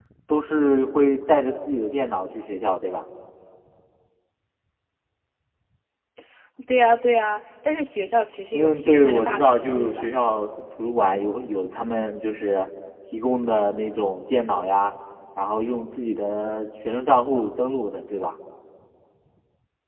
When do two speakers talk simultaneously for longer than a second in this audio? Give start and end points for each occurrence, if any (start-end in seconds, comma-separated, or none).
8.5-10.1